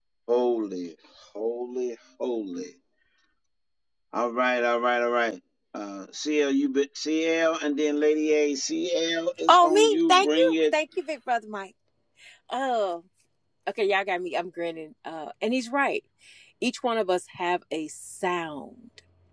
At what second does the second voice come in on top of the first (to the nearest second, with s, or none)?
9 s